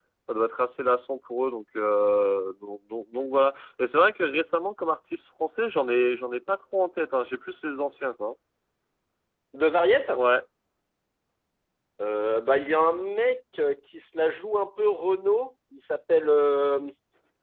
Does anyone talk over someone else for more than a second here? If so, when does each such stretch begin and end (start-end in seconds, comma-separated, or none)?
none